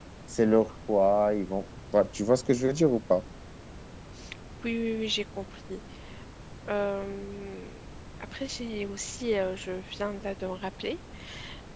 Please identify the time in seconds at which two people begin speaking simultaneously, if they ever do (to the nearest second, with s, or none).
none